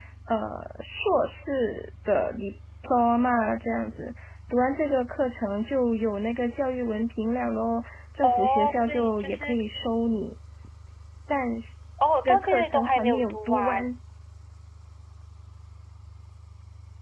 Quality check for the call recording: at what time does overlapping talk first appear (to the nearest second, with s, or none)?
8 s